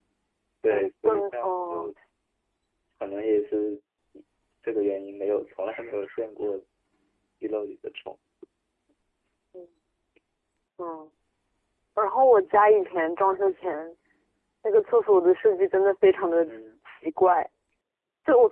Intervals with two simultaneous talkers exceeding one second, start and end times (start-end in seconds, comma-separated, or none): 0.7-1.9